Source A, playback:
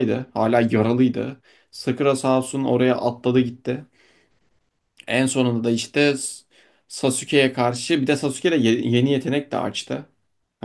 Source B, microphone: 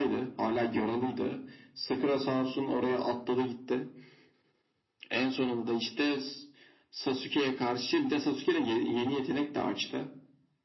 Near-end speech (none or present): none